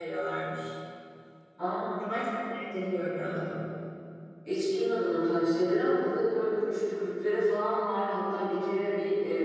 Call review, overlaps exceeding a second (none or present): none